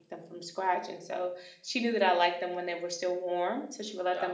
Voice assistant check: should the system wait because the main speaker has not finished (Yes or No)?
Yes